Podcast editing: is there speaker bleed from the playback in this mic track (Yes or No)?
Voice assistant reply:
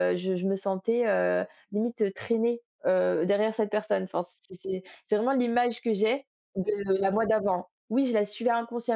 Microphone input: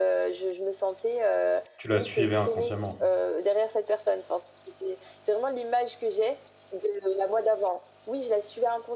Yes